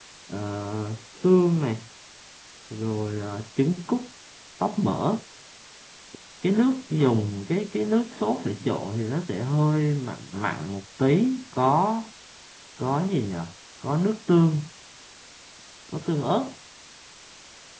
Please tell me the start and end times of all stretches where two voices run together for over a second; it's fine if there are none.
none

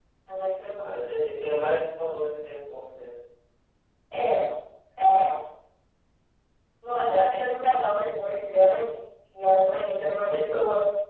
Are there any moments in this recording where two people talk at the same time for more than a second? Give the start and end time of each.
none

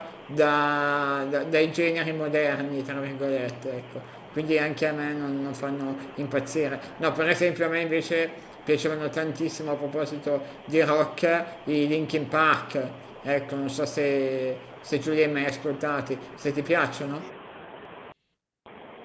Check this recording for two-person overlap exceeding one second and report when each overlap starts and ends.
none

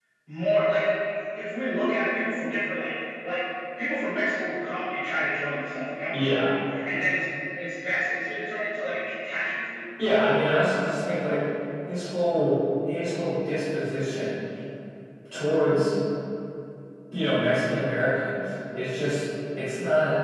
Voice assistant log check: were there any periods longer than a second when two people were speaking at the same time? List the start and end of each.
none

